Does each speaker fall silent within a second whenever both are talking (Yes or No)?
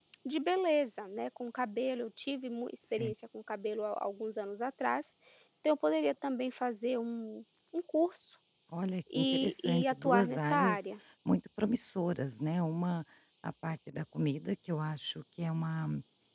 No